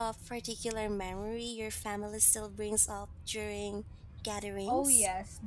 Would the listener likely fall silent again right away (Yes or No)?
No